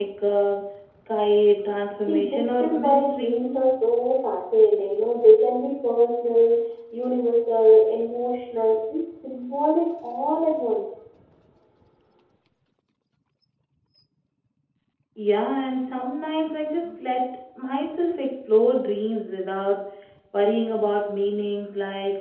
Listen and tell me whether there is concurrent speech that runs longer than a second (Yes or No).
Yes